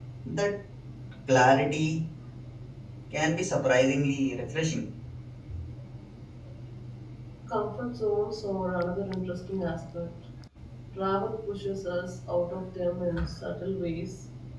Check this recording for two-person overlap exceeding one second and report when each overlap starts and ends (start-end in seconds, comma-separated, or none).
none